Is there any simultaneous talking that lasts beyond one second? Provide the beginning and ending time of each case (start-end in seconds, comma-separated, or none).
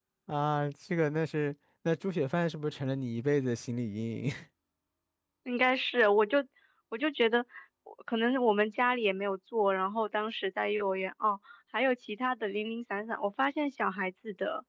none